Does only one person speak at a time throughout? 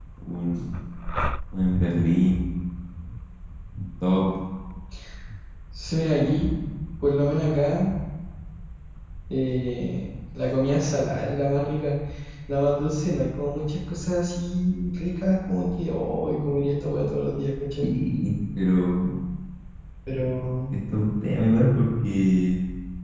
Yes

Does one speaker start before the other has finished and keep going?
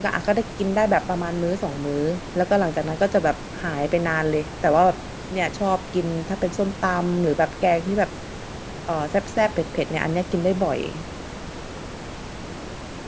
No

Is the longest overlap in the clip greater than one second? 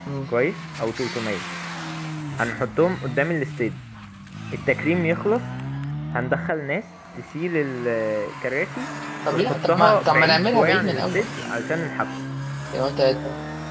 Yes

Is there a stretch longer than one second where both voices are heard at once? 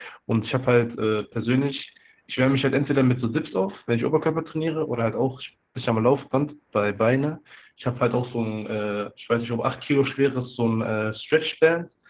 No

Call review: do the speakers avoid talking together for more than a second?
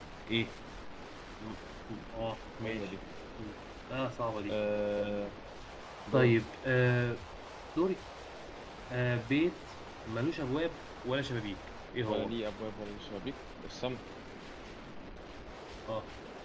Yes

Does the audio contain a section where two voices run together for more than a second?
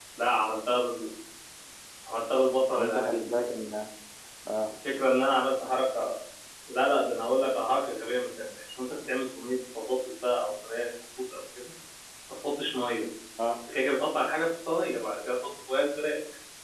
No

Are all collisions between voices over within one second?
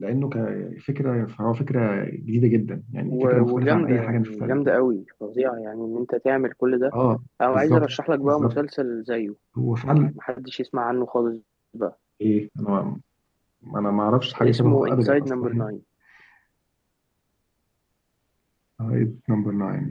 No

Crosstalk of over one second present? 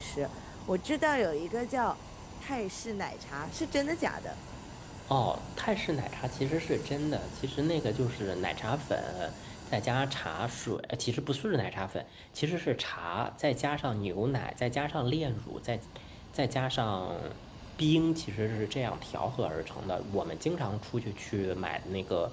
No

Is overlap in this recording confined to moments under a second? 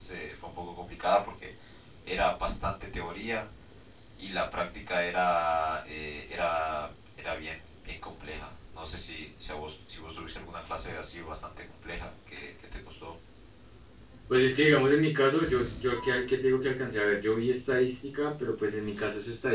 Yes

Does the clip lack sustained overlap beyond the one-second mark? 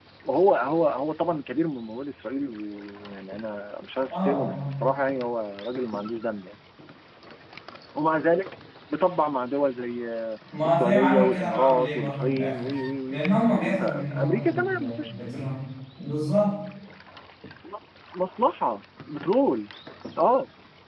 No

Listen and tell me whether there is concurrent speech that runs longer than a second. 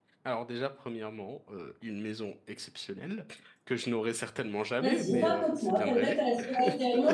Yes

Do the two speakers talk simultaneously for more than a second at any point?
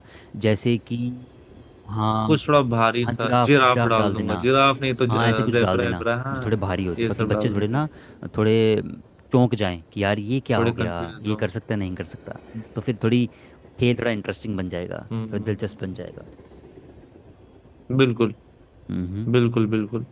Yes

